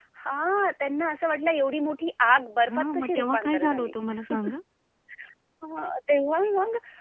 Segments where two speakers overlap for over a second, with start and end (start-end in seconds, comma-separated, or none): 2.7-3.9